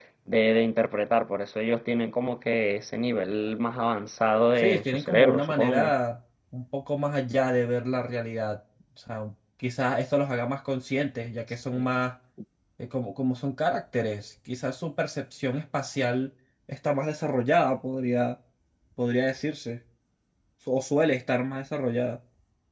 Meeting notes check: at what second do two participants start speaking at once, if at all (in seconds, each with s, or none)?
4.6 s